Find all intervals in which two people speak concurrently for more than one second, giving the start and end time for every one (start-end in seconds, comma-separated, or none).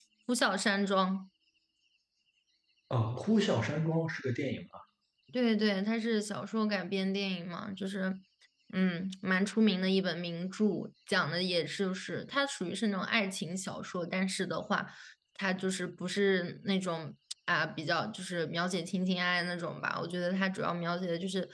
none